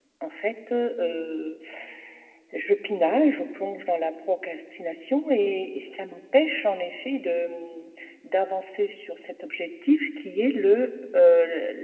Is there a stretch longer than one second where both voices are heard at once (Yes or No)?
No